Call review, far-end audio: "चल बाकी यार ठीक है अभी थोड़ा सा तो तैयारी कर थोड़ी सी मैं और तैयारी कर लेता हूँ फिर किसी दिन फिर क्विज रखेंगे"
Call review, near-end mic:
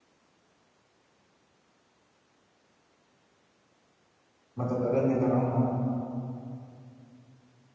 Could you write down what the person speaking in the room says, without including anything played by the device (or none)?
मतलब अगर मैं लगाऊंगा ना